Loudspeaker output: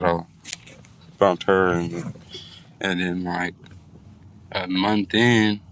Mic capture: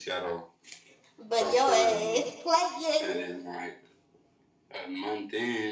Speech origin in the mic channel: both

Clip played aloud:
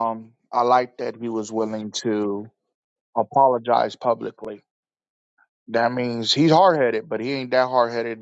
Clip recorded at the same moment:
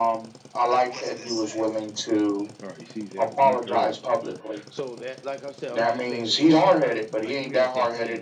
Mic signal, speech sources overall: both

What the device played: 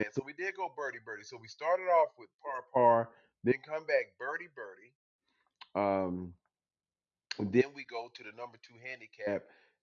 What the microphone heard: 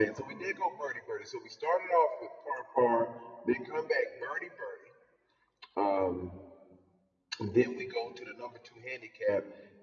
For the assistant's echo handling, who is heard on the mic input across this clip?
echo only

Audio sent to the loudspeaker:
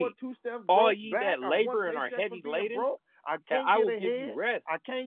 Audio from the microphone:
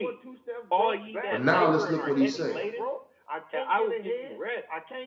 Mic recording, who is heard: both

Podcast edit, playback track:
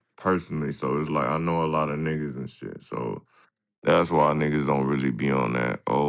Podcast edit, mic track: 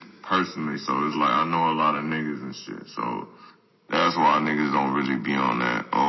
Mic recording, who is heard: echo only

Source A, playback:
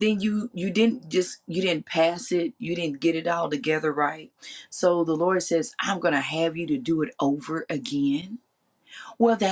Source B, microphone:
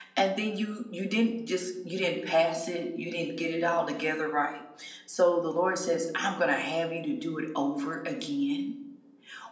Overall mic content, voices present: echo only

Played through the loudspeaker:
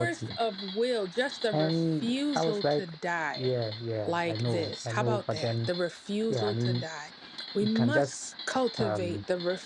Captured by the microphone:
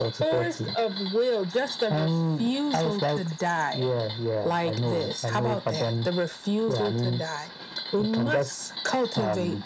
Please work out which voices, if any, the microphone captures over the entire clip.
echo only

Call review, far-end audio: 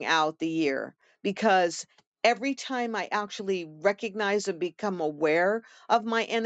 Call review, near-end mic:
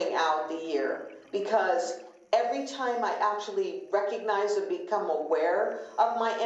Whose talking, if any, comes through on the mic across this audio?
echo only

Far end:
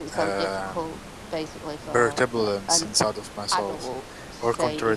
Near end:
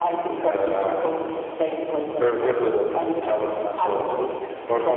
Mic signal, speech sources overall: echo only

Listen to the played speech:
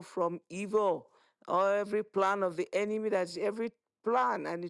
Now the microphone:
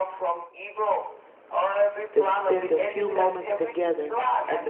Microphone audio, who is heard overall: both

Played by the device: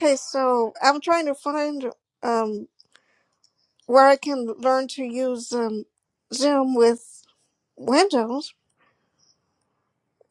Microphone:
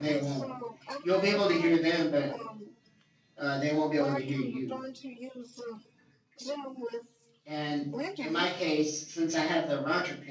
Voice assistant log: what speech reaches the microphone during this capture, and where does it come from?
both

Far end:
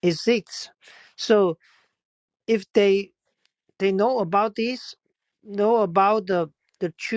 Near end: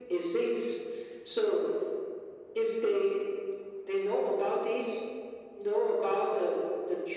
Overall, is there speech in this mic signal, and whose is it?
echo only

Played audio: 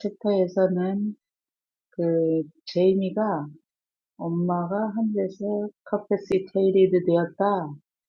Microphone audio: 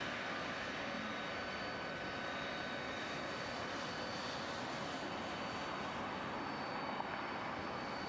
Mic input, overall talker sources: neither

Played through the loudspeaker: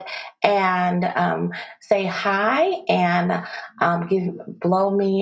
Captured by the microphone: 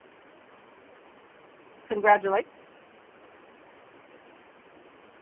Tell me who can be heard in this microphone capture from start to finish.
user only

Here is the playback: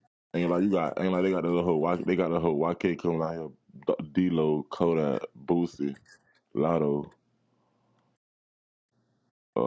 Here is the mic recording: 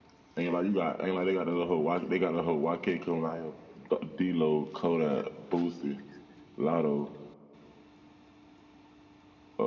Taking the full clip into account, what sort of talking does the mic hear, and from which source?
echo only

